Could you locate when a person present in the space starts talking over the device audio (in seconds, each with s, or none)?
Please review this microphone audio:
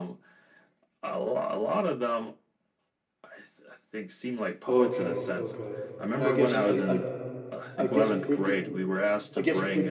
4.6 s